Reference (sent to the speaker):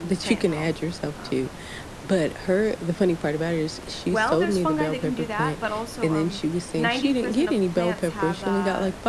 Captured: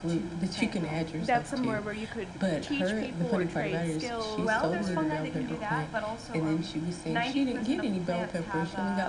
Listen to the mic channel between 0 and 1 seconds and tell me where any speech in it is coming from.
echo only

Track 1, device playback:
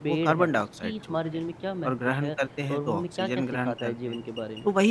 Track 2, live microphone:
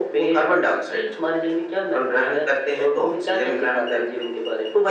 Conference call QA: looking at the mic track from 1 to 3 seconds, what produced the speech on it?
echo only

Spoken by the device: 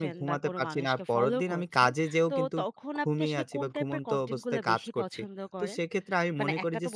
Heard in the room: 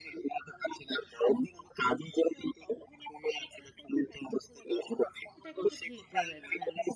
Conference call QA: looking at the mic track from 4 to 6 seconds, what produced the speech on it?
both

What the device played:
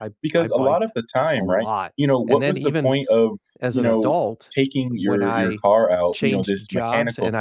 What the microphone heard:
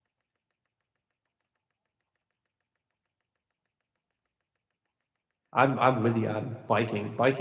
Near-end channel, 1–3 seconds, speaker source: neither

